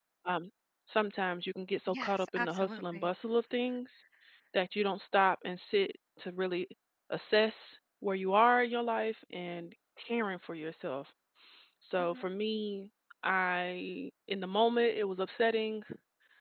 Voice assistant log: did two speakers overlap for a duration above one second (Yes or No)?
Yes